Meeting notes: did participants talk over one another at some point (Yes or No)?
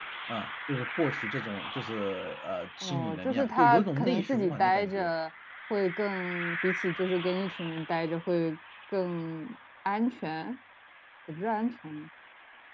Yes